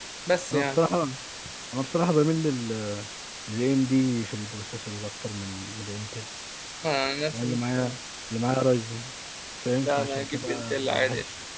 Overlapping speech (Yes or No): Yes